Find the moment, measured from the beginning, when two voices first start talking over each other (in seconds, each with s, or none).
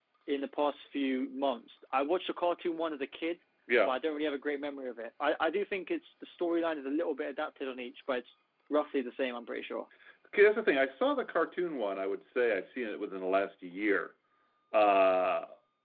none